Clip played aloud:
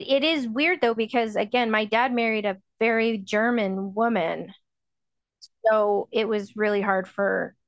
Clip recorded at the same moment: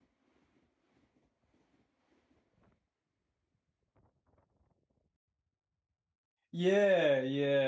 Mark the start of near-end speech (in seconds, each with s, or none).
6.5 s